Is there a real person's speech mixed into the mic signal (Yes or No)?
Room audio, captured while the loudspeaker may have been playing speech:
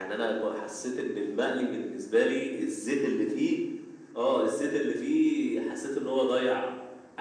No